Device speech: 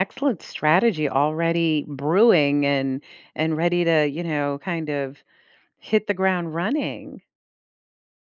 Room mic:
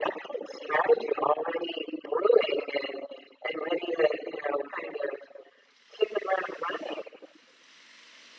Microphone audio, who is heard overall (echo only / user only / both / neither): echo only